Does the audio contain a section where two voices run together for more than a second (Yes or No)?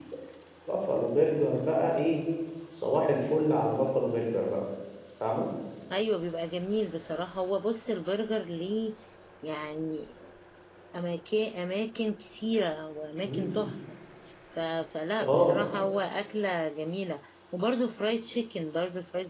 No